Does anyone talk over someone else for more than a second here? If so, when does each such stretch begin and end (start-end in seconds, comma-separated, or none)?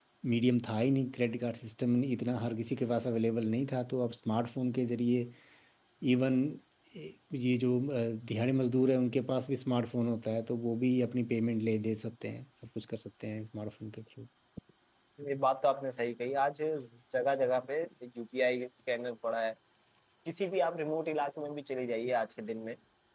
none